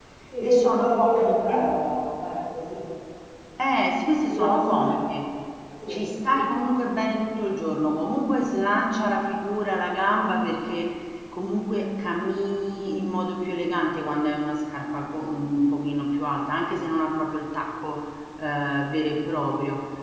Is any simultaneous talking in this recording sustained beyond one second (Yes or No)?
Yes